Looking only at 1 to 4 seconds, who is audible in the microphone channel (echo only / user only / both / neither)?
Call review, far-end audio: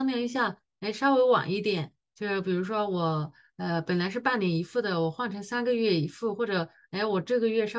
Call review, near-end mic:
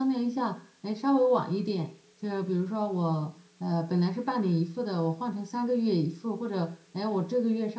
echo only